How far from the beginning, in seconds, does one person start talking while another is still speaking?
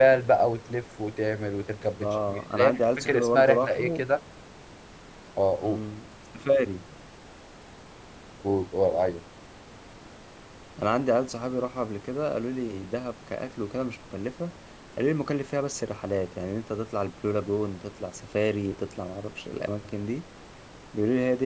2.0 s

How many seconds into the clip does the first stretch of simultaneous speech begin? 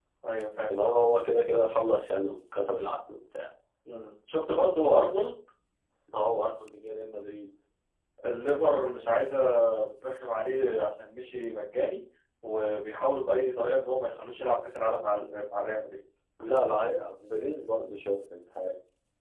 none

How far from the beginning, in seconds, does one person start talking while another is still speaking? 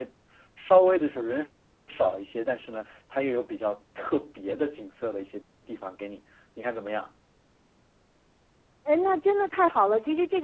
none

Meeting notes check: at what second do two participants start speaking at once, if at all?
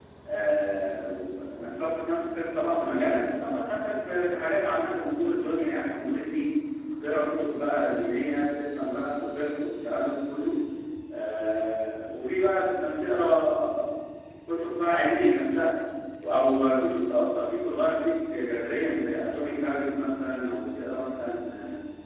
none

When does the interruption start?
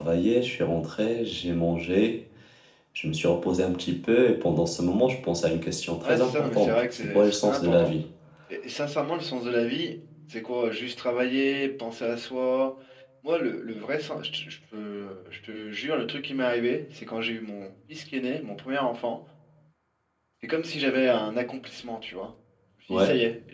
6.0 s

